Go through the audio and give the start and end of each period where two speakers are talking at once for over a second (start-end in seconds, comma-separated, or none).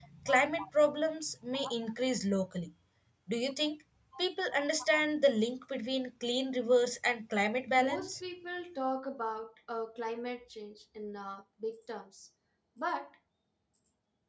none